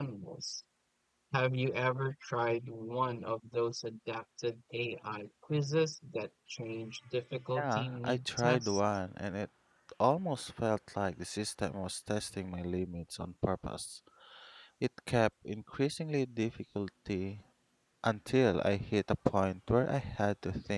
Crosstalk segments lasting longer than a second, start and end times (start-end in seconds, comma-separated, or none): 7.6-8.8